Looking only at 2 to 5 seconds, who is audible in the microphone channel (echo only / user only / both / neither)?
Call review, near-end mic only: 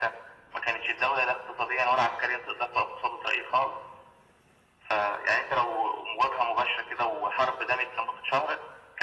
echo only